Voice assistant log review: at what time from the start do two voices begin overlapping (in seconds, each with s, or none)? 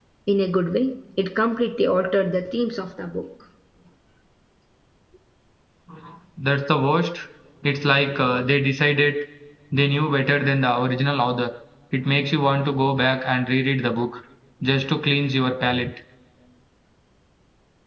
none